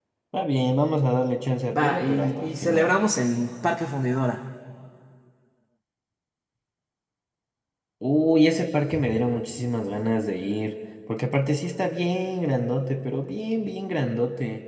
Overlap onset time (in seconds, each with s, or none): 1.7 s